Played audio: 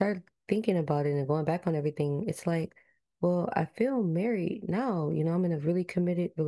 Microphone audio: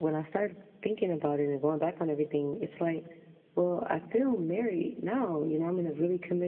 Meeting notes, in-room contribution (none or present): none